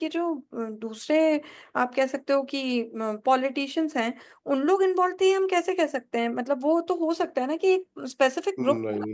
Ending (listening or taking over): taking over